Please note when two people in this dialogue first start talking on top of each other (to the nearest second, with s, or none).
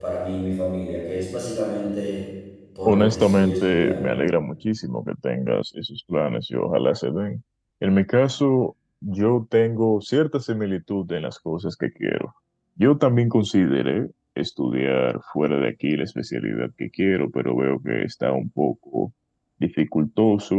3 s